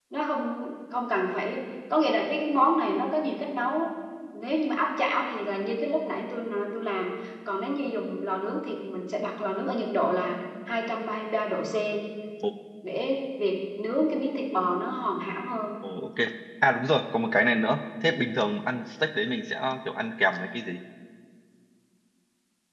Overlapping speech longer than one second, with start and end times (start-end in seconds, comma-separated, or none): none